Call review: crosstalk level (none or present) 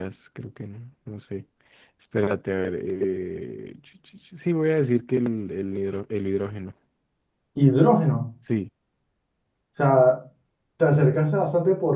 none